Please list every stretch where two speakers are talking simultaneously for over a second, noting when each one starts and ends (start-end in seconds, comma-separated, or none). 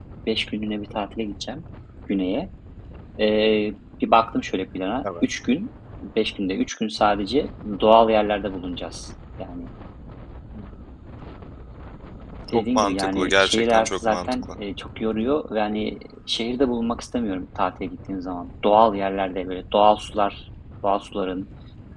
12.5-14.5